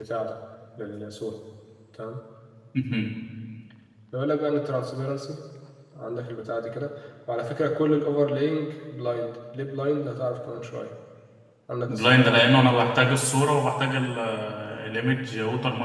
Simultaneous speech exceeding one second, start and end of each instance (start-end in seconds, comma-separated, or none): 11.9-13.2